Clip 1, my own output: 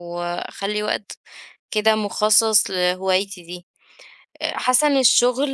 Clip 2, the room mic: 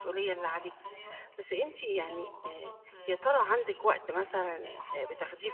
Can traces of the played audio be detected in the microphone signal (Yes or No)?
Yes